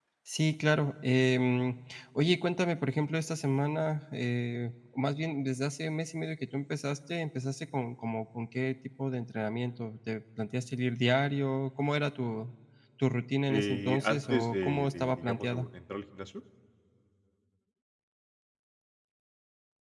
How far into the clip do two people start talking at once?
13.5 s

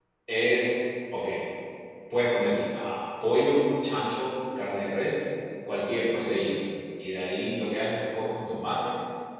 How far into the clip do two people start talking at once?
none

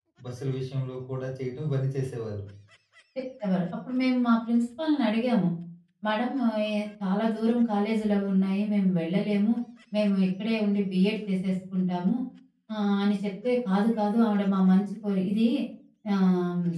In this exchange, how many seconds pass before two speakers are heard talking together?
none

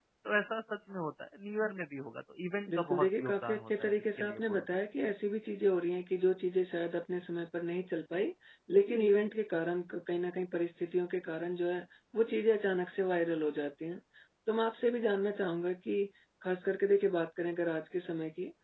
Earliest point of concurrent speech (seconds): 2.7 s

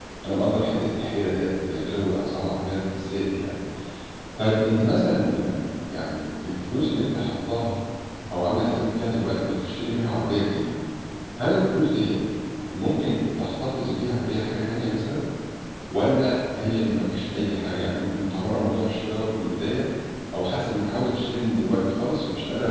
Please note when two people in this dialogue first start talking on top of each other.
none

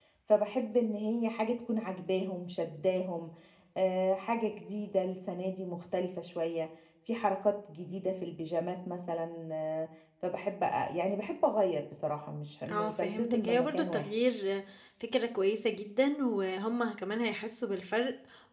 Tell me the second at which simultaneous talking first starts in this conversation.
12.7 s

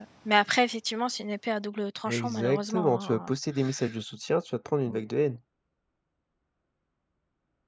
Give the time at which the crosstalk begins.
2.1 s

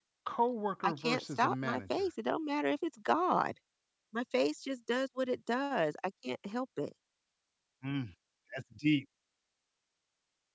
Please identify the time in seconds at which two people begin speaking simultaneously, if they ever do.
0.8 s

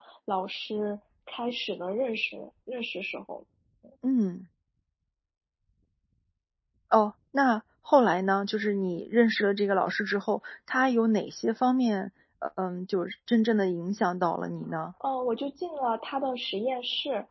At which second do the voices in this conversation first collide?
none

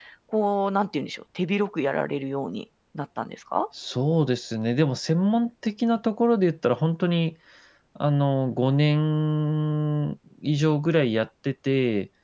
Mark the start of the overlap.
none

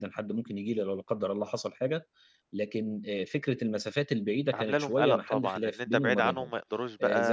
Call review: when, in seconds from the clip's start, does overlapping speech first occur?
4.5 s

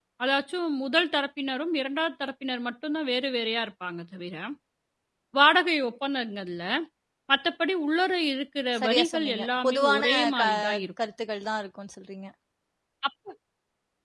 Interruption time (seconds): 8.8 s

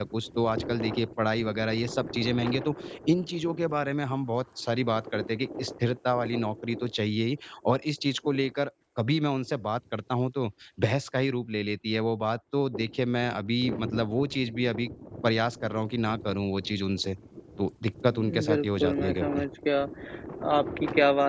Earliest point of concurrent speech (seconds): 18.1 s

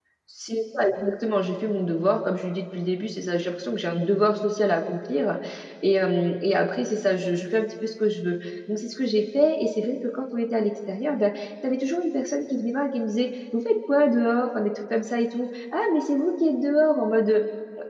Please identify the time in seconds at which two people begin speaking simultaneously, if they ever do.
none

